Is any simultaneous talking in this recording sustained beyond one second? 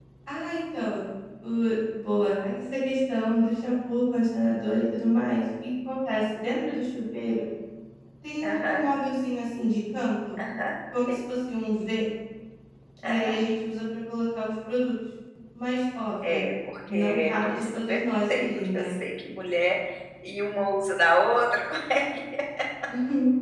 Yes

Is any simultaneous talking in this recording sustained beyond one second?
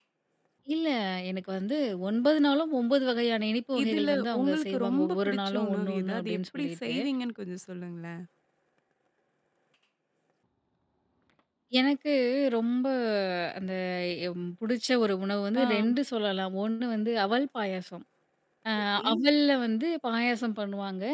Yes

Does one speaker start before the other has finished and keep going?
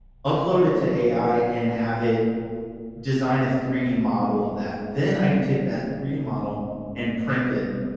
No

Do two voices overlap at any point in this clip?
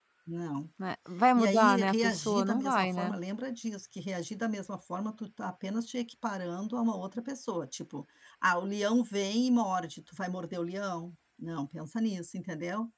Yes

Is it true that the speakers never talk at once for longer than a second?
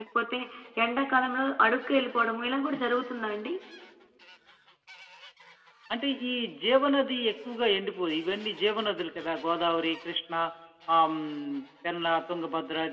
Yes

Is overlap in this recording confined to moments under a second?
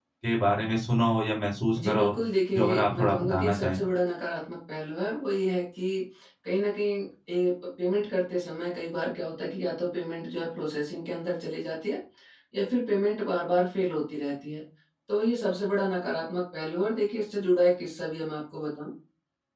No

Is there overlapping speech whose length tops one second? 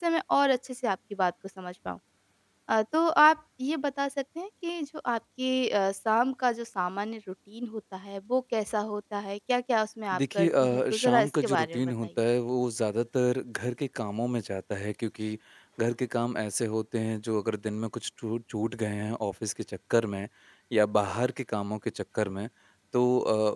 Yes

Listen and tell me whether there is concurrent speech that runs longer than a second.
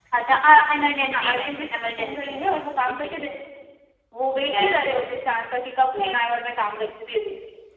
Yes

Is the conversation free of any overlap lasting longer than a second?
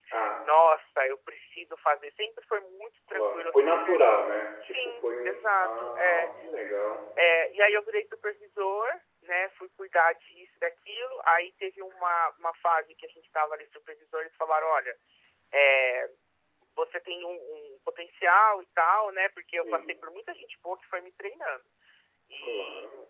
No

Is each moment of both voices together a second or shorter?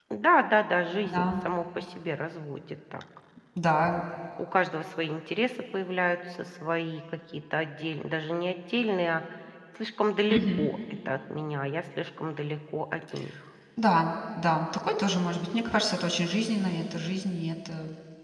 Yes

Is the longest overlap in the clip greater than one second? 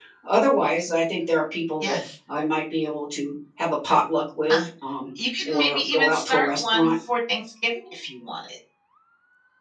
Yes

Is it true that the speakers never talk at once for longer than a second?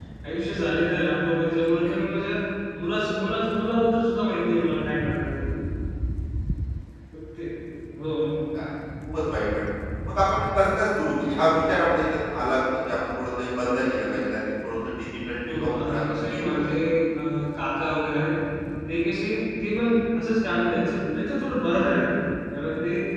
No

